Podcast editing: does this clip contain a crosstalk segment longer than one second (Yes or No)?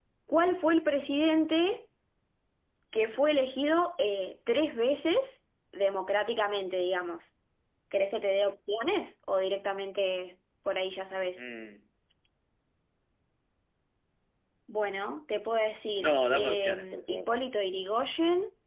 Yes